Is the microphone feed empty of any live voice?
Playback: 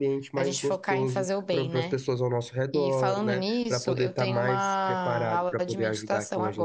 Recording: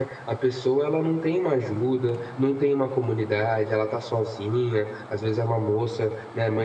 No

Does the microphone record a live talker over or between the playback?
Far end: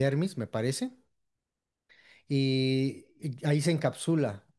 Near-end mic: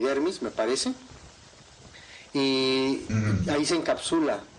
Yes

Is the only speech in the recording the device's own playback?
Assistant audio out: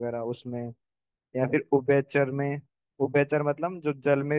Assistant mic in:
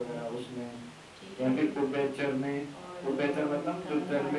No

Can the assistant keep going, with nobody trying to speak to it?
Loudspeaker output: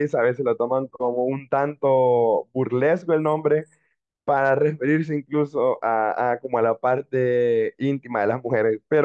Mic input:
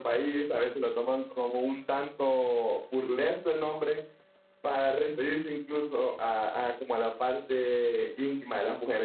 Yes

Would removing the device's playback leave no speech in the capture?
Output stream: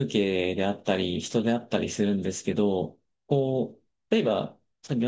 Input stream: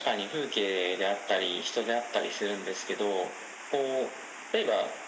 Yes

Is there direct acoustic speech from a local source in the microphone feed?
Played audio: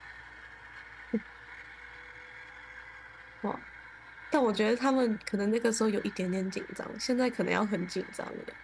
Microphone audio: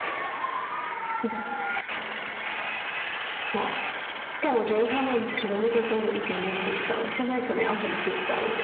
No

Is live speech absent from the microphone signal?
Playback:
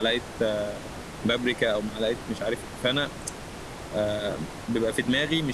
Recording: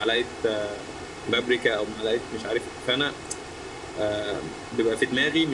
Yes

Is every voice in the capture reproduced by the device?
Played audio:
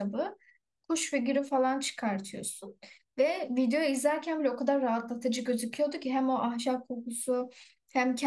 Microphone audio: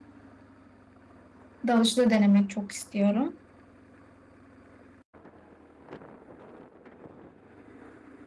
No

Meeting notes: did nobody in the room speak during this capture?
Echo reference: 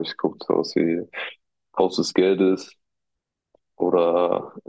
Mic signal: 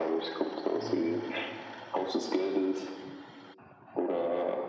No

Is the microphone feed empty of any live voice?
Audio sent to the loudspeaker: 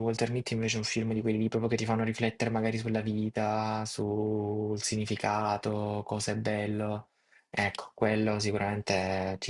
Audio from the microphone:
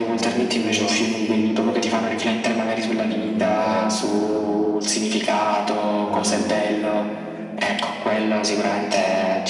No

